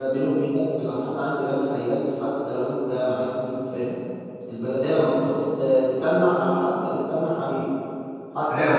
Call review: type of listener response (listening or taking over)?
taking over